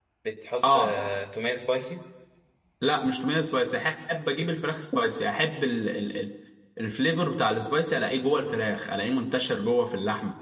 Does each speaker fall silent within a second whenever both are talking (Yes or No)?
Yes